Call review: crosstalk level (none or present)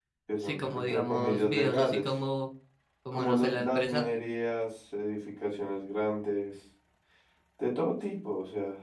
present